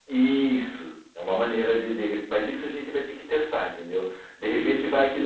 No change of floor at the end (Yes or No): Yes